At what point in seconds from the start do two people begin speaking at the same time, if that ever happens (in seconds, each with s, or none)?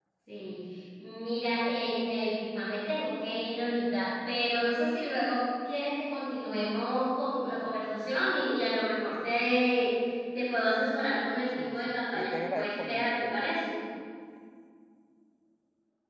11.6 s